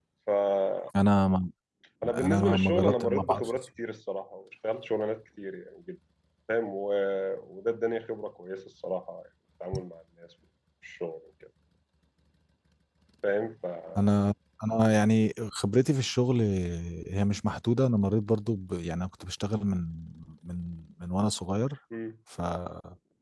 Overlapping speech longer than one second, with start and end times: 2.1-3.6

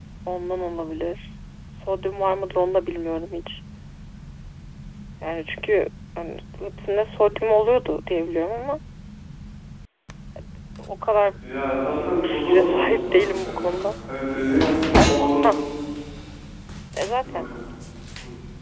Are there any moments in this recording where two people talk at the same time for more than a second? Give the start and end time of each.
12.0-13.8

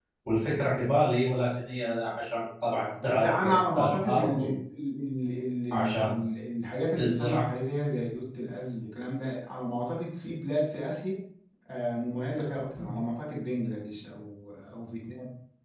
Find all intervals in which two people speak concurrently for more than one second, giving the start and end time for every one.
3.0-4.5

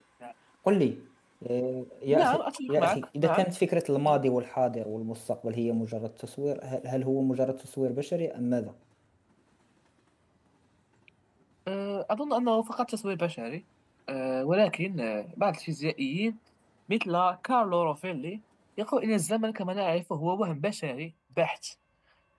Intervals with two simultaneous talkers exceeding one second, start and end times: 2.1-3.5

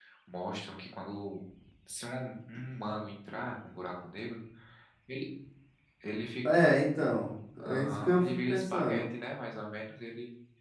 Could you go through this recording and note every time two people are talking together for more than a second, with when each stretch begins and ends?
7.7-9.0

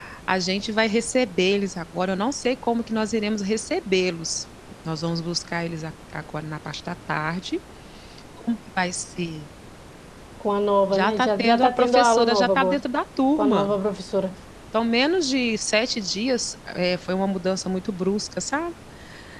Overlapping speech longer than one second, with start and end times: 10.9-12.8

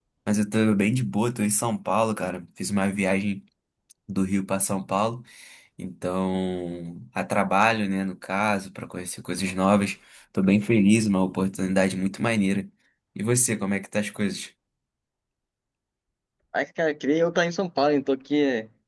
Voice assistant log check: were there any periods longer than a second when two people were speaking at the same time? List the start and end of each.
none

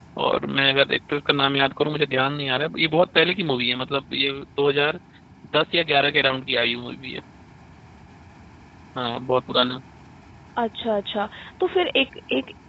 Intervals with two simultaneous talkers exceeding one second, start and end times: none

